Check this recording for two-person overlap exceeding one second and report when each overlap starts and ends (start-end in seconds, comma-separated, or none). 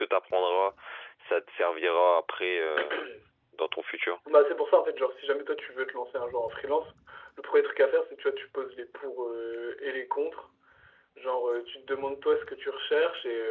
none